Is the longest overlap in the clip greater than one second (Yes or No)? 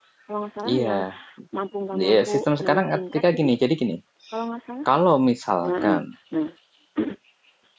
Yes